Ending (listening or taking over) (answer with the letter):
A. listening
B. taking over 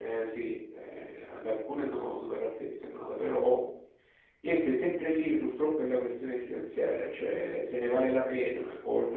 A